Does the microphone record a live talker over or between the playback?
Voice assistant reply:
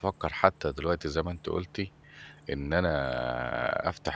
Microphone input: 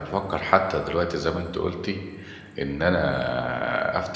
No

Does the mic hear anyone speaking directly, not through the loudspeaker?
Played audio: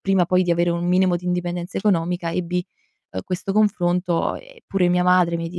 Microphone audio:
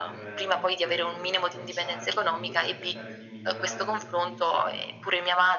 Yes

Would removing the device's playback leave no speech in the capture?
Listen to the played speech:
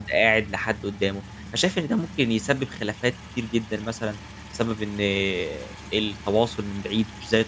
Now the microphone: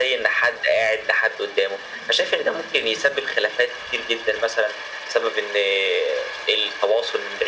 Yes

